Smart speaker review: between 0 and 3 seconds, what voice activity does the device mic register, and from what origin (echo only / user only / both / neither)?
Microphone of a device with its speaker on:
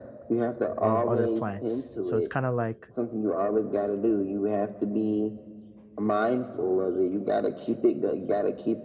both